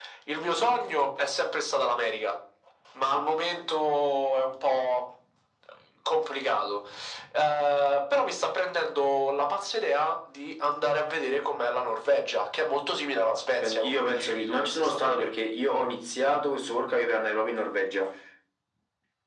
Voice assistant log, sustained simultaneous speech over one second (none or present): present